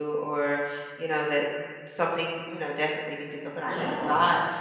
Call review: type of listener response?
listening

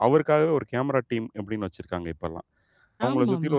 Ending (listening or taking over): listening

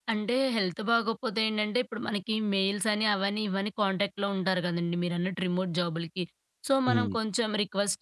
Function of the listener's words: listening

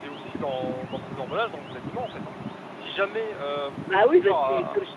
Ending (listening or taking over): taking over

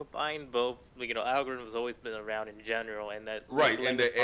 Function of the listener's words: taking over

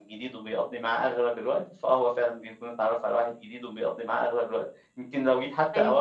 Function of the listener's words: listening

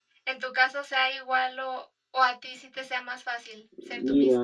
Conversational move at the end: taking over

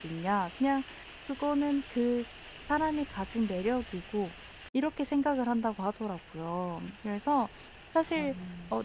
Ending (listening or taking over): listening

